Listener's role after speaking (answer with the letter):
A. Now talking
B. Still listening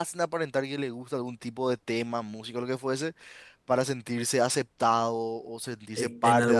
A